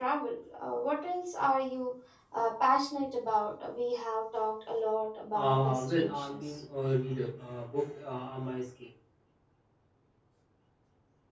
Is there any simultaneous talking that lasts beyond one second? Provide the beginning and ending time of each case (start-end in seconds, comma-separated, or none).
5.3-6.6